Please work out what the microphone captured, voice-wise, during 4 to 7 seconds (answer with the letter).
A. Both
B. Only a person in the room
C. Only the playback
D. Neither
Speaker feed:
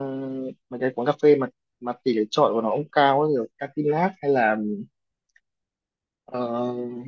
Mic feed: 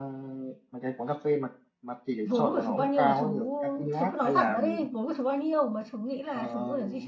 A